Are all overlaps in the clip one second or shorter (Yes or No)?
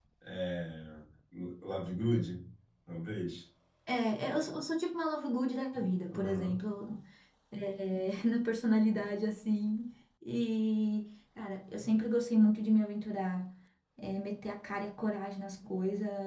Yes